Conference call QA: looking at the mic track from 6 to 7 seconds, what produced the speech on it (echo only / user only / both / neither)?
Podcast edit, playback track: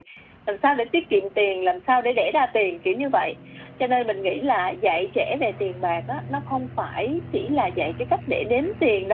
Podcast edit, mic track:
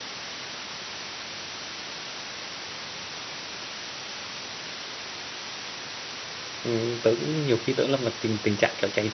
user only